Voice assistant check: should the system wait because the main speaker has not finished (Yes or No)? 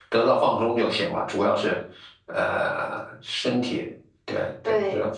No